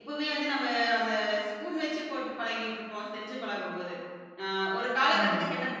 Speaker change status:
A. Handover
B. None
B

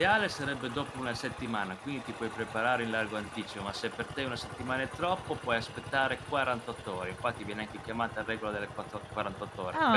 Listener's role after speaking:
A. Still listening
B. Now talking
B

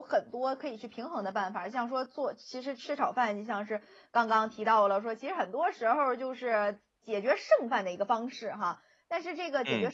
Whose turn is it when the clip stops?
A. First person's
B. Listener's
A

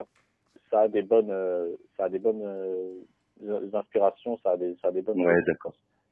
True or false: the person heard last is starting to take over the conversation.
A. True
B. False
A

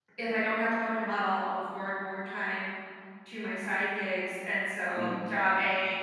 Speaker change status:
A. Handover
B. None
B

